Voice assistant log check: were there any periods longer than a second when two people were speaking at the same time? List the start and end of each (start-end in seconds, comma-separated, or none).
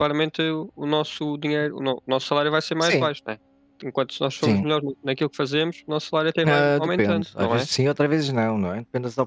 6.4-7.7